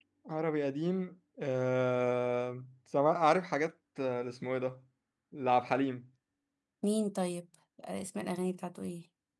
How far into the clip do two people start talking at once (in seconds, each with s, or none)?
none